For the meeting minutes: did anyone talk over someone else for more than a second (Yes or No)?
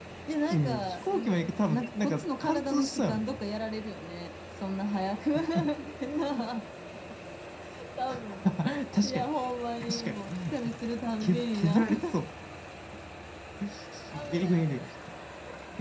Yes